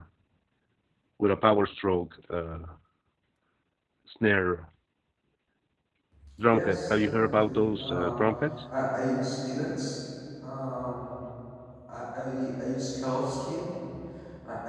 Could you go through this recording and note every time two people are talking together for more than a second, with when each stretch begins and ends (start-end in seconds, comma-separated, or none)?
6.5-8.2